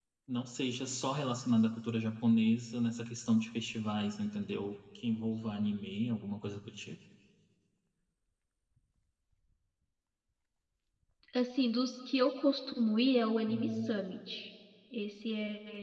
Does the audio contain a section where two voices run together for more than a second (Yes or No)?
No